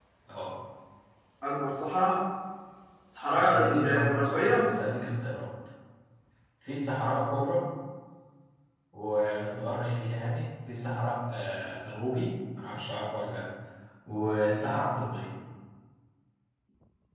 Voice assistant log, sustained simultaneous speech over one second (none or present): present